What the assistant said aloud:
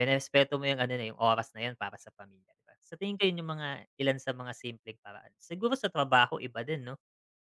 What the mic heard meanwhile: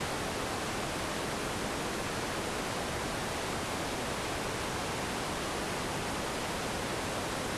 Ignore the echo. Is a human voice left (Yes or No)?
No